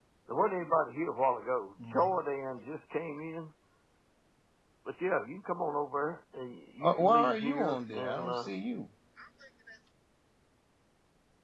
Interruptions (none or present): present